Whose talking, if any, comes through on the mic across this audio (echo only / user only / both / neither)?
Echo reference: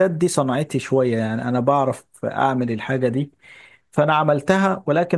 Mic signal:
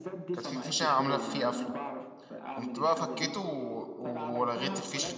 both